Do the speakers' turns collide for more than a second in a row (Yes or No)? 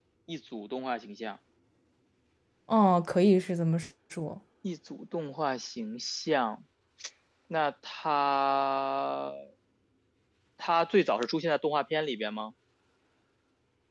No